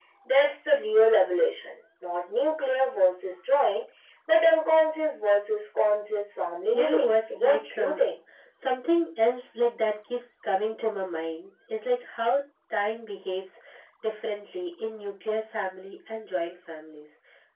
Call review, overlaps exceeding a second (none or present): present